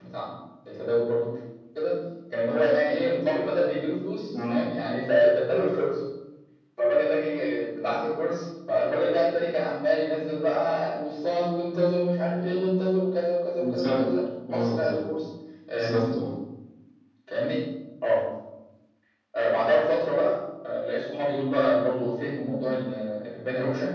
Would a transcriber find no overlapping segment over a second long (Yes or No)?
Yes